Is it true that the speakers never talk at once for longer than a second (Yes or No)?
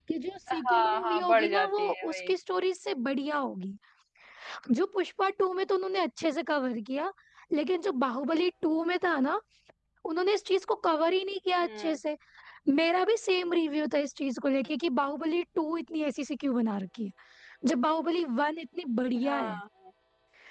No